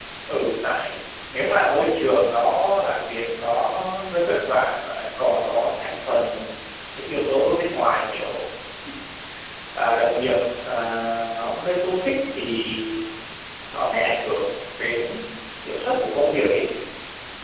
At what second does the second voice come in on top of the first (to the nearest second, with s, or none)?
none